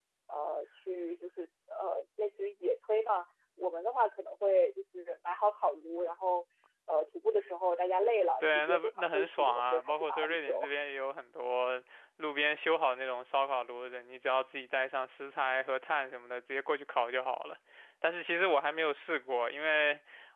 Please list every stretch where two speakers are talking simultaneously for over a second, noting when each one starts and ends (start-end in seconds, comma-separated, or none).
8.4-10.7